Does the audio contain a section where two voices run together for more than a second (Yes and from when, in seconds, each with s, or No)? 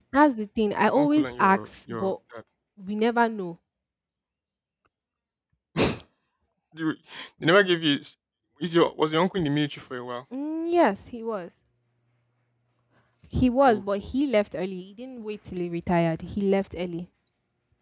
Yes, from 0.9 s